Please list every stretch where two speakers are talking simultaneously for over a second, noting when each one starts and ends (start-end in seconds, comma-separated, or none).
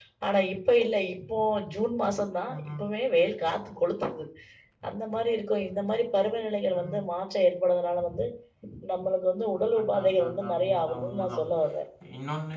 9.8-11.4